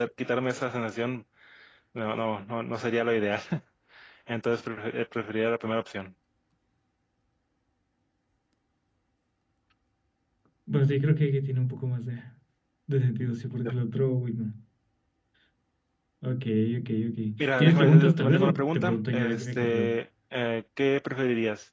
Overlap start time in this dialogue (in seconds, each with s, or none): 17.6 s